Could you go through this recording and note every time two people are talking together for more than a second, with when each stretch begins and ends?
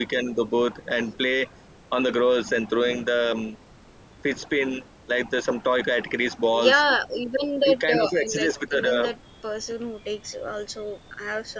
7.7-9.1

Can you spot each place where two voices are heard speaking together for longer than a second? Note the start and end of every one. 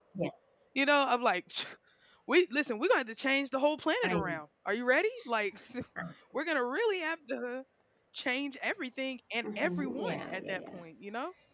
9.4-10.8

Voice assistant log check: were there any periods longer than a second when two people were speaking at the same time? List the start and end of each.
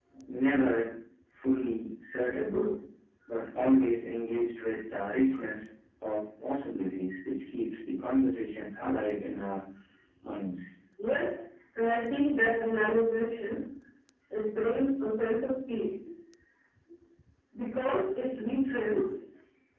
none

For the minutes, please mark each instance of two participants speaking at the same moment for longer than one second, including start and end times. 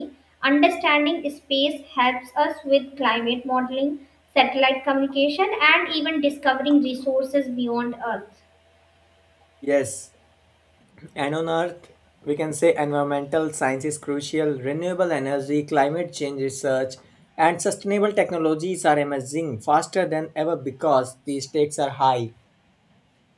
none

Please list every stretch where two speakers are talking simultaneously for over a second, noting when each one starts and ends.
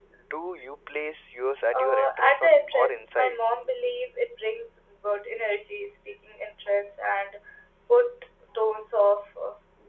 1.7-3.4

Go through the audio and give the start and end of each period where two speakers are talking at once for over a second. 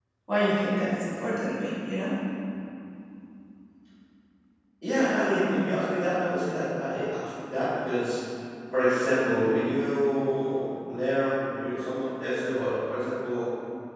none

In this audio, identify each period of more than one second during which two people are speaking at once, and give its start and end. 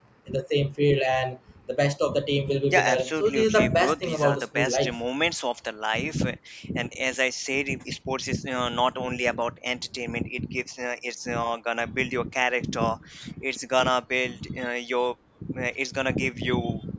2.7-5.0

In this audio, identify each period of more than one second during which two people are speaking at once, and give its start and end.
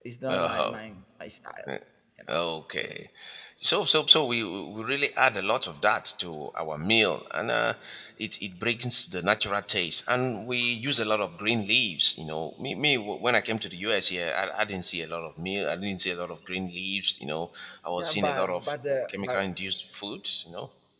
17.9-19.4

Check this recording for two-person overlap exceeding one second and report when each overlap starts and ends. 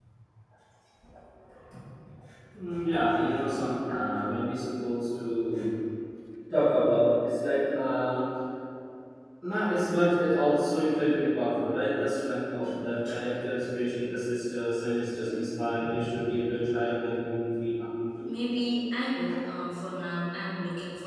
none

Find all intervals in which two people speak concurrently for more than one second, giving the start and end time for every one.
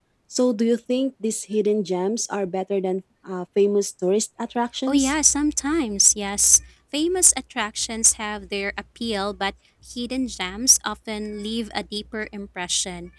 none

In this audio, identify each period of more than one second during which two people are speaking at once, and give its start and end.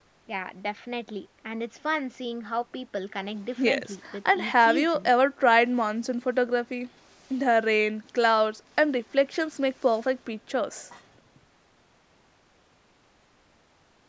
3.6-5.1

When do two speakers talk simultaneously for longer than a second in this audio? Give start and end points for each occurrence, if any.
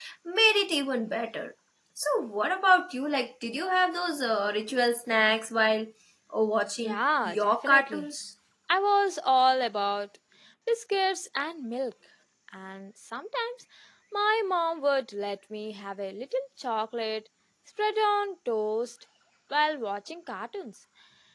6.8-8.1

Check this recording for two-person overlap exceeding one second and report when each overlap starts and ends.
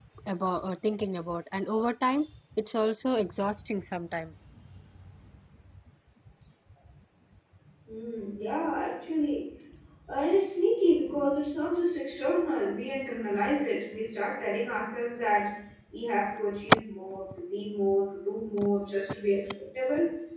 none

